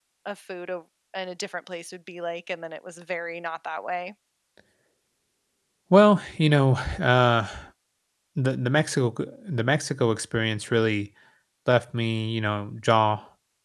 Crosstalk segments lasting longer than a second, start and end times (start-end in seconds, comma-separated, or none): none